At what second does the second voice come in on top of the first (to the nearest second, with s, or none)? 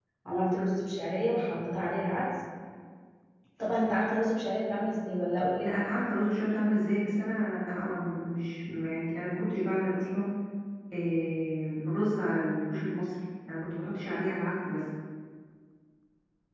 none